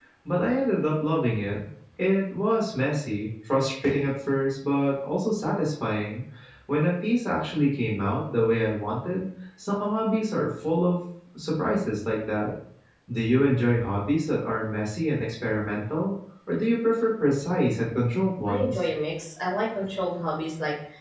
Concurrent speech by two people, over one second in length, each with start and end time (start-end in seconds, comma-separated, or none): none